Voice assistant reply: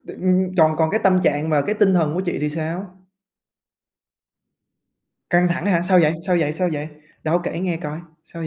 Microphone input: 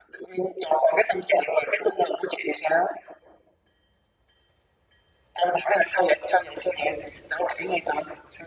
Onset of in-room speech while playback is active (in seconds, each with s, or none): none